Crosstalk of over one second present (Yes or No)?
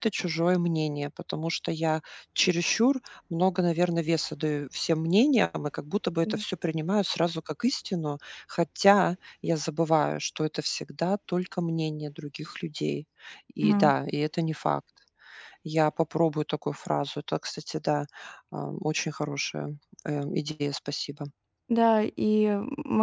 No